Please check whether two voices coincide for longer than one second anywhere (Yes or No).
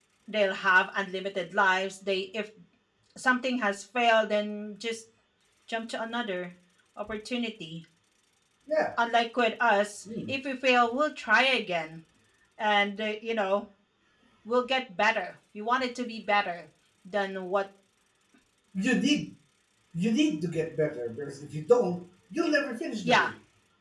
No